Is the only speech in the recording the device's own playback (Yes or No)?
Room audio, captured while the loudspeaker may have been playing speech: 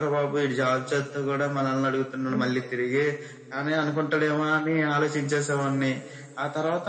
No